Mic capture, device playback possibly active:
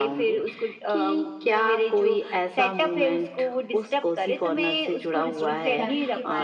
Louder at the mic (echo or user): echo